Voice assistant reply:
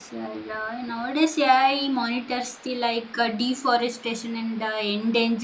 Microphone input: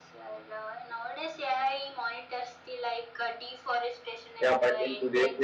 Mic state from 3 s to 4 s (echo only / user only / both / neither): echo only